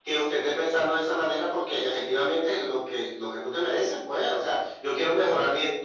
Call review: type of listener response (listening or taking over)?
listening